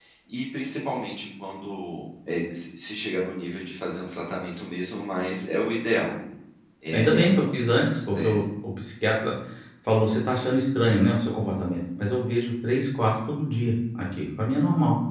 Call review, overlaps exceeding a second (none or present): none